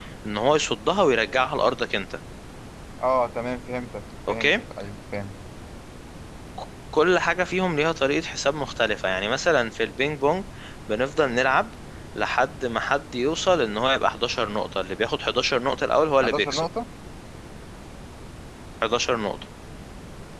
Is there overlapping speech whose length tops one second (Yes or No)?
No